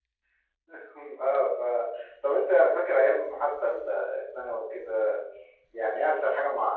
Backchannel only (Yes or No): Yes